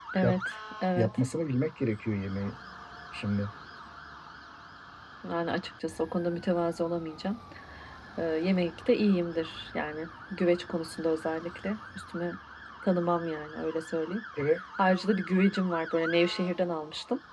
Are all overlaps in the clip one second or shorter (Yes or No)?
Yes